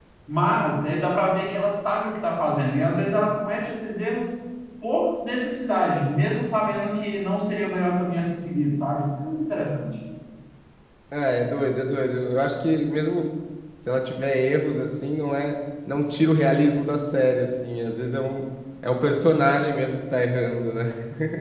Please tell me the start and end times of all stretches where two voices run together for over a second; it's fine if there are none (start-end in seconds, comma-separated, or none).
none